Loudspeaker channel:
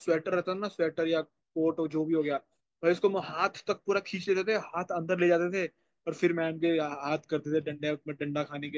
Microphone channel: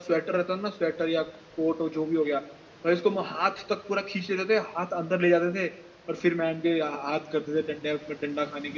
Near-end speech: none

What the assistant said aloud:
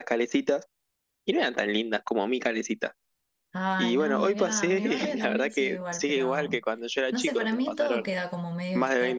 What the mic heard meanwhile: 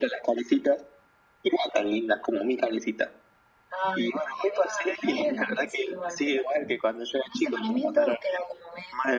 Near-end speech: none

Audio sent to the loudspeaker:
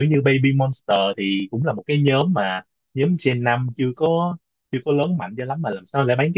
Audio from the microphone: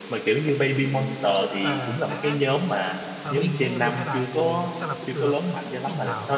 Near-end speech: present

